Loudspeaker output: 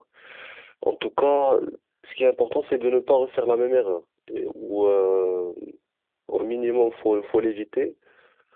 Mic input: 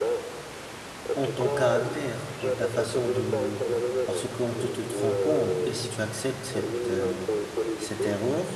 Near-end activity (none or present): present